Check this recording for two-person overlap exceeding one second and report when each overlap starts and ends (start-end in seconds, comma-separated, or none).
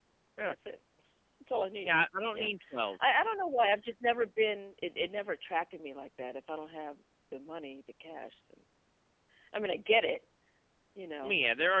none